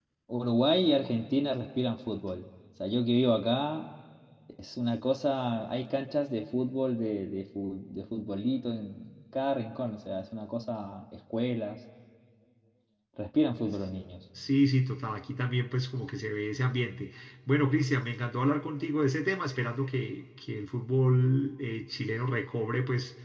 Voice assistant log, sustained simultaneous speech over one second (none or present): none